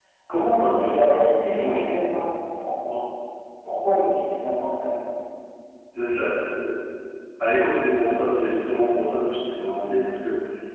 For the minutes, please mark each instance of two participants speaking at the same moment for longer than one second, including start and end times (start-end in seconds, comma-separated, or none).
0.7-2.0